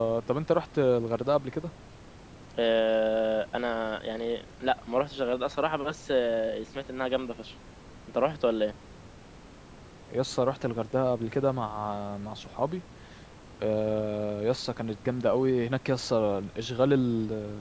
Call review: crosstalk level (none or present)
none